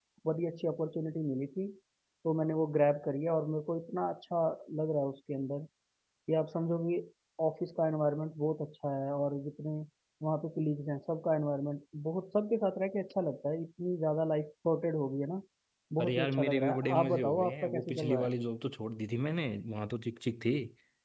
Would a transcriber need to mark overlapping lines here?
Yes, from 16.0 s

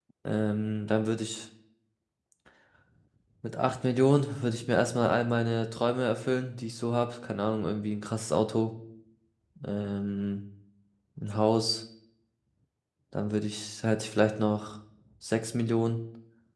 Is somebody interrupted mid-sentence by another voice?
No

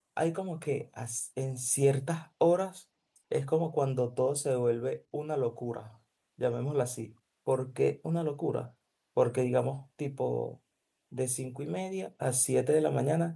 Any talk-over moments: No

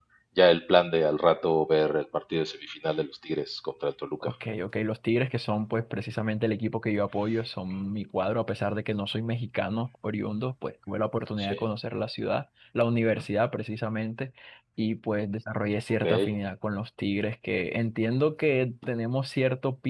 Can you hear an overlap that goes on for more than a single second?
No

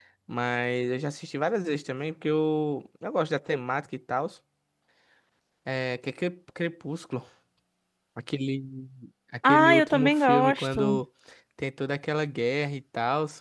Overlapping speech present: Yes, from 9.4 s

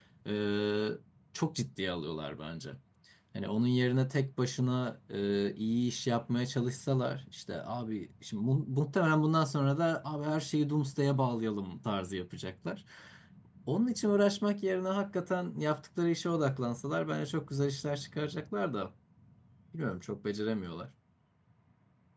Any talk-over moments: No

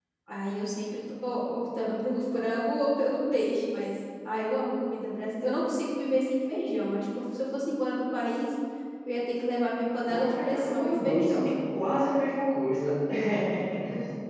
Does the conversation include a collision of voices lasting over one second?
Yes, from 10.1 s

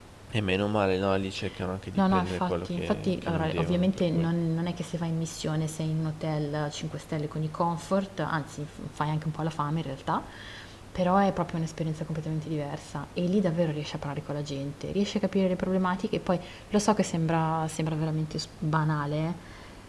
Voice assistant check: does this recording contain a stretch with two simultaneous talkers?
Yes, from 2.0 s

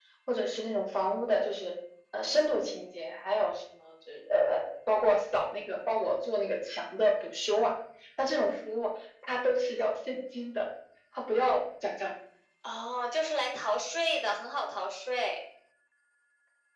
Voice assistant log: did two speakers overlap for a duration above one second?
No

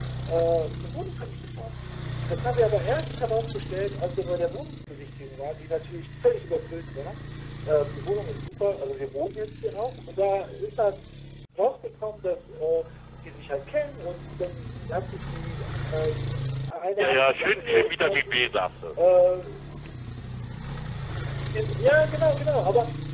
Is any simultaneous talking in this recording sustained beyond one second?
Yes, from 17.0 s

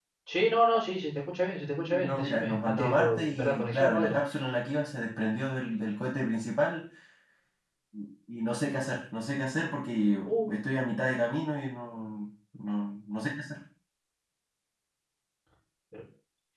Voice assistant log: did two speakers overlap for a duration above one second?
Yes, from 1.6 s

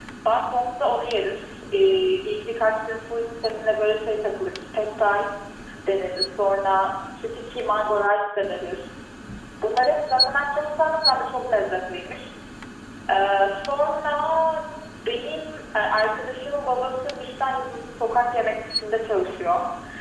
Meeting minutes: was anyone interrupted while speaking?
No

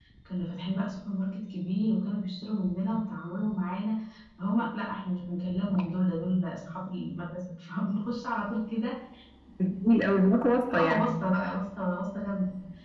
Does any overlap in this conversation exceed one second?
No

